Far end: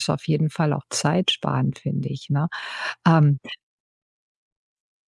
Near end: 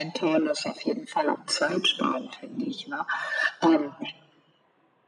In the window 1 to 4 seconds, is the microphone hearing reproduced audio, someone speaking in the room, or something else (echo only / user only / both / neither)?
echo only